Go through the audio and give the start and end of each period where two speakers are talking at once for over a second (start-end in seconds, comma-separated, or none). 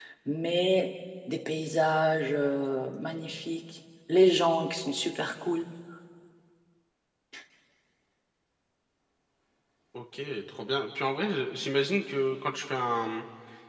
none